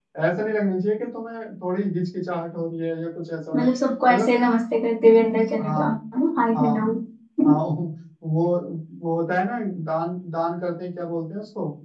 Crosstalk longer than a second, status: none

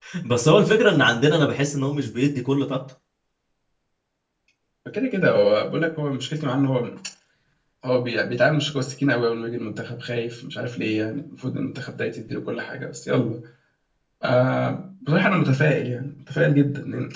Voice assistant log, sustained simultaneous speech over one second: none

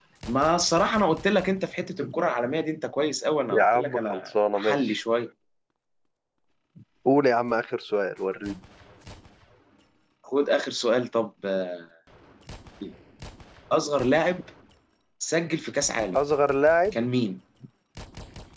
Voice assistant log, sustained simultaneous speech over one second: present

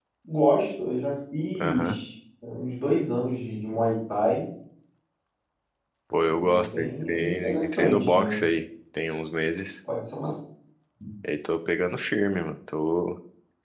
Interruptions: present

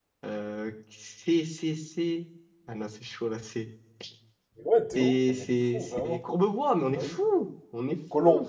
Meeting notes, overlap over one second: present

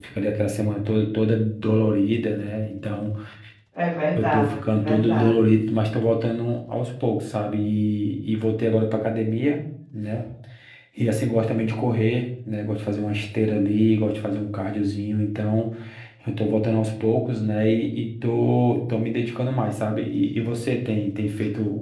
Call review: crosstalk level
present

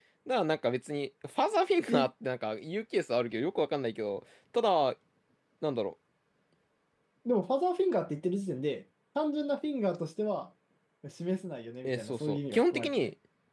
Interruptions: present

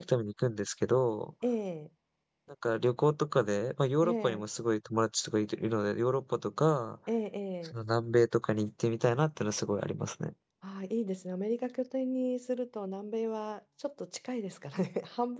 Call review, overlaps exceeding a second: none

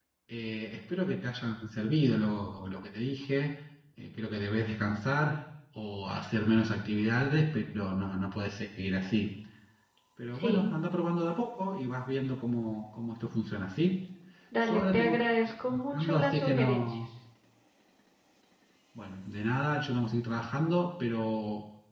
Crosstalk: present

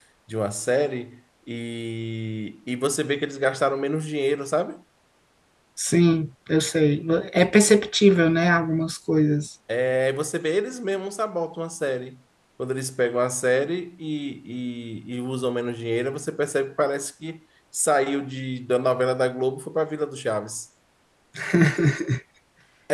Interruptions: none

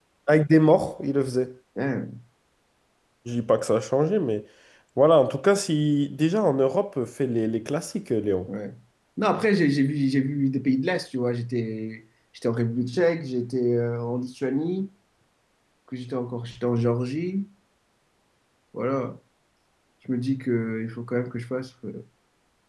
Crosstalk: none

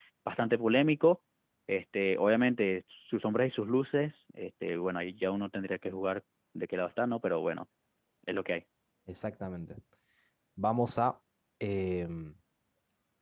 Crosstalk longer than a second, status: none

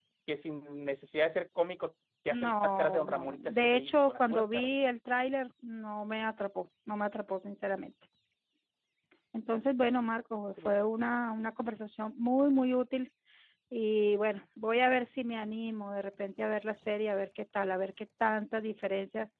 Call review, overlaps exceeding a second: present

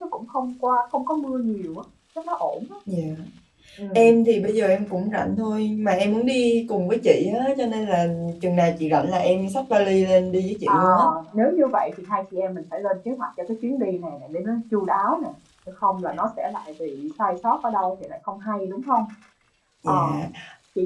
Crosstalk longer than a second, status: none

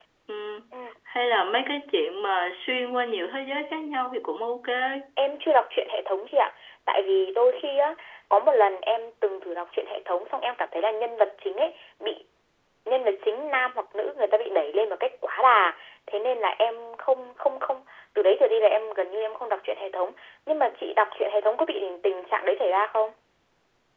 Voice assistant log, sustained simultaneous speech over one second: none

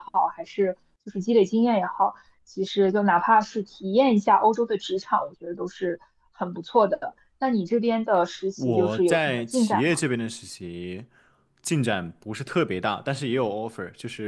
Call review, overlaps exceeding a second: present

